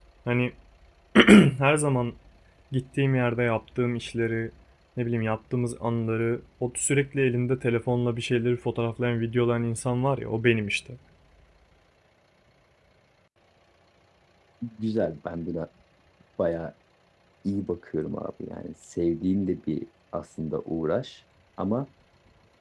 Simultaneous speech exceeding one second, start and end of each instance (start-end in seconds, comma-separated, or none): none